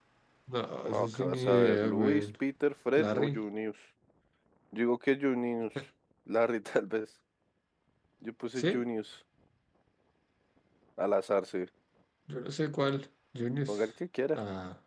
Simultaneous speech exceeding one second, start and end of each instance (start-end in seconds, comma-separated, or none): 0.8-2.2